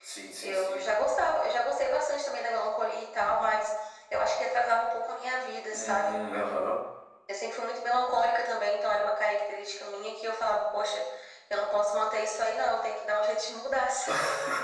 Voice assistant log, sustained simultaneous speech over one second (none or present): none